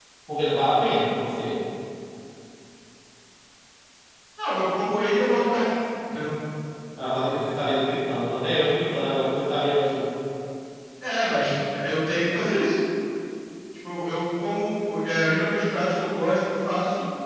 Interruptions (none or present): none